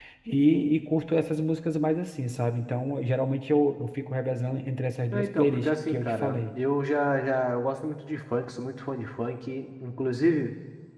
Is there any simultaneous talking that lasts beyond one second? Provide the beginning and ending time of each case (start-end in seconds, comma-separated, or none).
5.1-6.4